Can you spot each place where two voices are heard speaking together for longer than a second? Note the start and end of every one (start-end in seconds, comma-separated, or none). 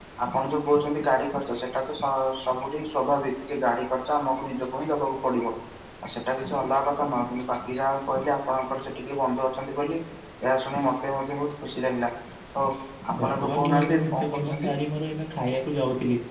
13.2-14.7